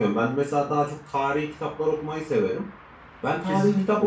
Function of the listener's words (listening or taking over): listening